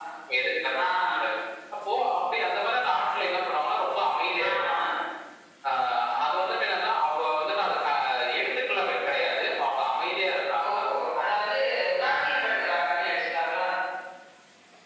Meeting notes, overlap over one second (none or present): none